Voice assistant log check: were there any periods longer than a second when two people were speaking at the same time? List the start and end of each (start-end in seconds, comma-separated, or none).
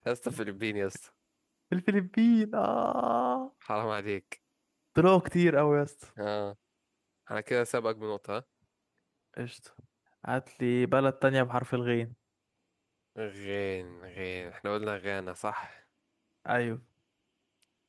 none